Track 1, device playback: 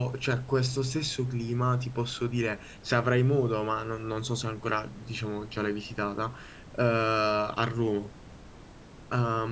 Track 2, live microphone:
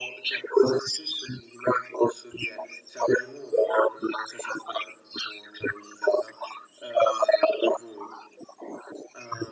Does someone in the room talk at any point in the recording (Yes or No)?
No